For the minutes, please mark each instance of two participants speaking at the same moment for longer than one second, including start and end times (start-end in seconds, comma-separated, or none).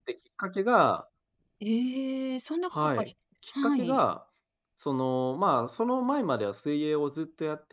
none